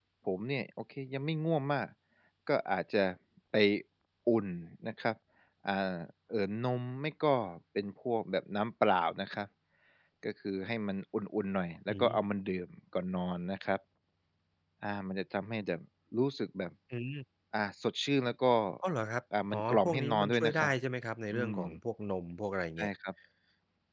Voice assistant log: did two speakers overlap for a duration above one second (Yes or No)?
Yes